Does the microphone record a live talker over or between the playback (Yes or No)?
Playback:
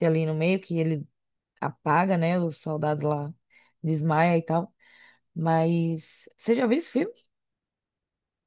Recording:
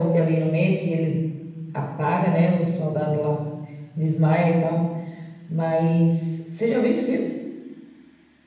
No